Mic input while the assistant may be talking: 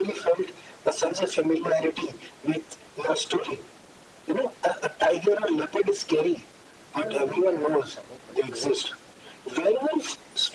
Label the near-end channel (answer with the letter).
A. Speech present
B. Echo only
A